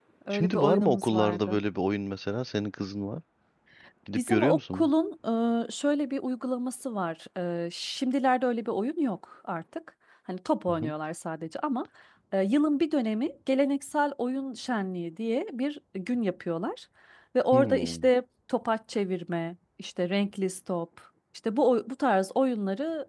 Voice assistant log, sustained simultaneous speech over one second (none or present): present